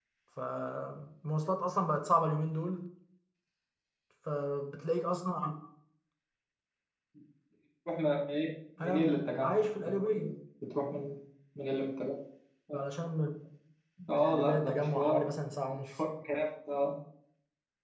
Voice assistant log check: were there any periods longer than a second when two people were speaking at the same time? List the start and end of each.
8.8-10.3, 14.1-15.9

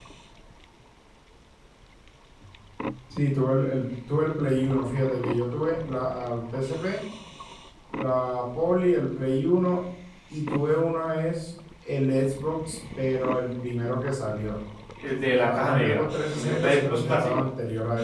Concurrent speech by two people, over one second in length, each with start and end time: 15.4-17.5

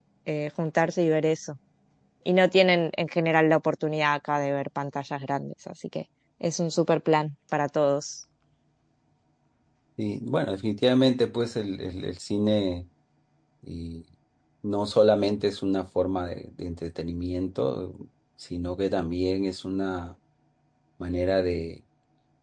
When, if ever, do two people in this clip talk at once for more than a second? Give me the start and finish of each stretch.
none

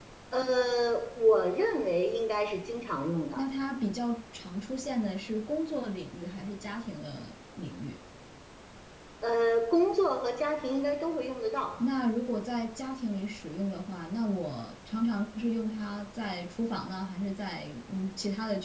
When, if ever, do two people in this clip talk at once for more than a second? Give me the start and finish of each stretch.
none

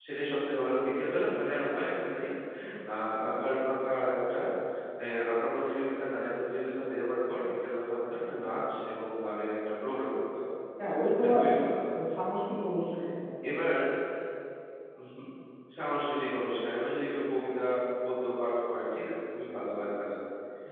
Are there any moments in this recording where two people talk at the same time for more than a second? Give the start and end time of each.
none

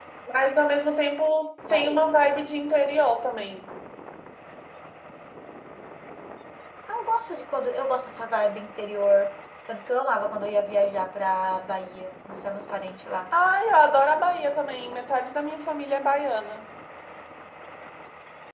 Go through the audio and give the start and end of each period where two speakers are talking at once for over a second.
none

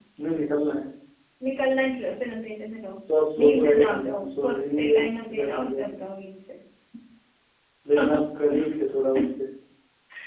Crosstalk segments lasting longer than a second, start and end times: 3.4-5.9

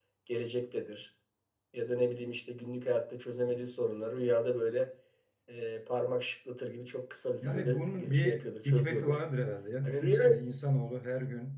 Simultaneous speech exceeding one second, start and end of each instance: 7.4-9.2

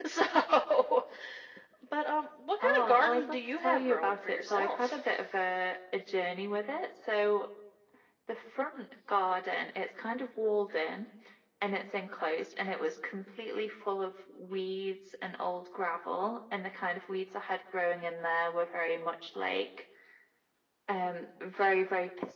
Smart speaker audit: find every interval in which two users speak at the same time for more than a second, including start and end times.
2.6-5.0

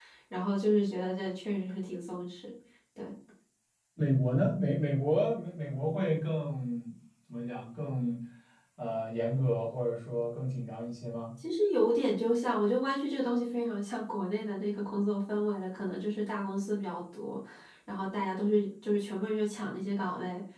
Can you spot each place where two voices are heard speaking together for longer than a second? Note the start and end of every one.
none

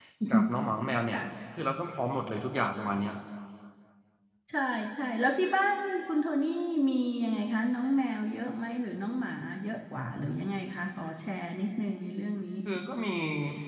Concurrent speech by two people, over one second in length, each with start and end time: none

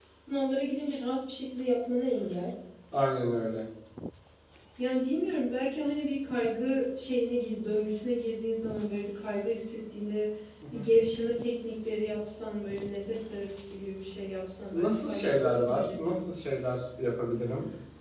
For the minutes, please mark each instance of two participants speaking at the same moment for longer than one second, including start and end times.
14.7-16.2

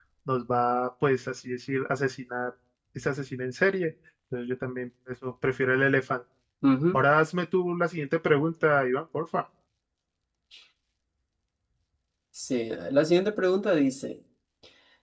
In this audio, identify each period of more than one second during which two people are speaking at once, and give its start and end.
none

